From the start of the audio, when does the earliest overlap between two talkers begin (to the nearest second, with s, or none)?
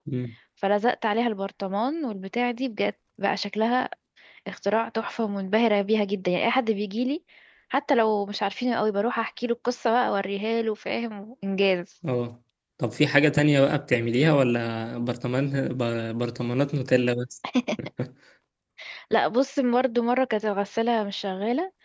none